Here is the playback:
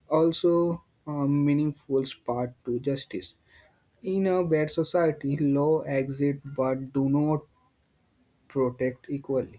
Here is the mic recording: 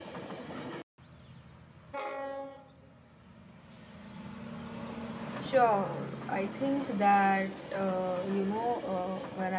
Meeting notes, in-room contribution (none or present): present